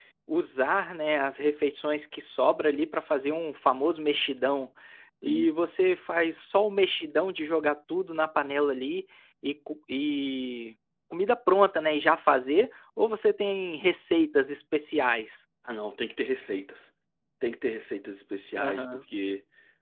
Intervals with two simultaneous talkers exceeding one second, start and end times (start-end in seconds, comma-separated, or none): none